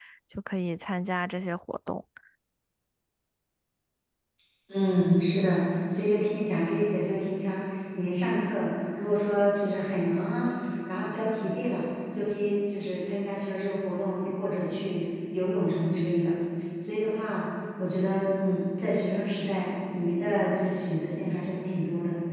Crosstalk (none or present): none